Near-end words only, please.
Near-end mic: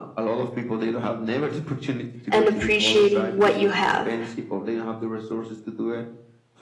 and appreciating what you have.

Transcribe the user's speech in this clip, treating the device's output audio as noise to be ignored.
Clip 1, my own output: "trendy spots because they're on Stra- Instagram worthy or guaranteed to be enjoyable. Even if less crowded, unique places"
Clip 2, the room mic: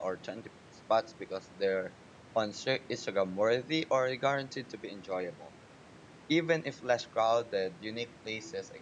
none

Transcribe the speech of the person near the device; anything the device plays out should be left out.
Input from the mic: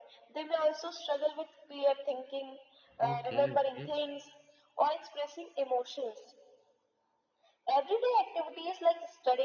Okay, okay.

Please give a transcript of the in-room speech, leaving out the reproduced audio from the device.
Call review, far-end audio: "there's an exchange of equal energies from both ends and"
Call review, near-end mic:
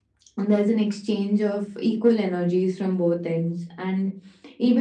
none

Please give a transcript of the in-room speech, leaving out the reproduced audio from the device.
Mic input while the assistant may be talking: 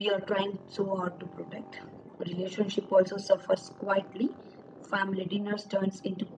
none

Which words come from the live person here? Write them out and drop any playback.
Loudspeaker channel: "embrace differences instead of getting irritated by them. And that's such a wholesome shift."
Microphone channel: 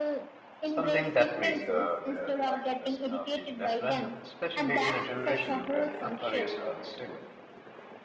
something that makes uh, their life less uh, feel less random, especially in a generation where you know careers are unstable,

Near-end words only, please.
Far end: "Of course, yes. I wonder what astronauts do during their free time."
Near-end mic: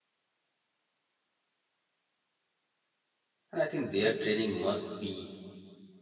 And I think their training must be

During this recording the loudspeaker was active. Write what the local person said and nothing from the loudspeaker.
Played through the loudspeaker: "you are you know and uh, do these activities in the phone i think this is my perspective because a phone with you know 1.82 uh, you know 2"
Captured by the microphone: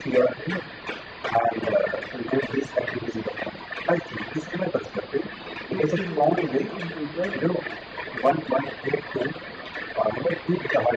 15 year up to in future

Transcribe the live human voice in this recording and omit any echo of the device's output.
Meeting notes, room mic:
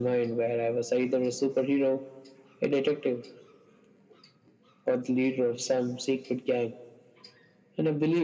none

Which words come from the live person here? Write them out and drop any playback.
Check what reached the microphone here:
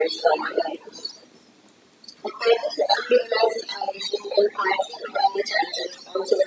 none

